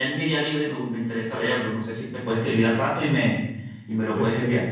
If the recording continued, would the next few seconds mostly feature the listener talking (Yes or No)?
Yes